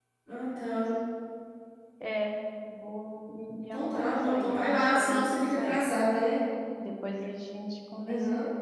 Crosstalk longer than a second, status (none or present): present